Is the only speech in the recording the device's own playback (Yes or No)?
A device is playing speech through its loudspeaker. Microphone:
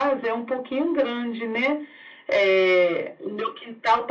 Yes